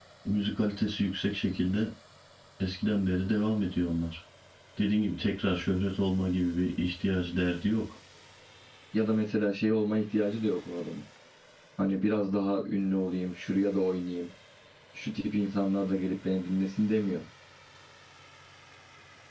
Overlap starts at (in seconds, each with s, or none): none